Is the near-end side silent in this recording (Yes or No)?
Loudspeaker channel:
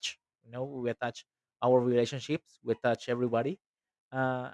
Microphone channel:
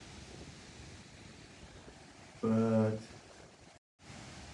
No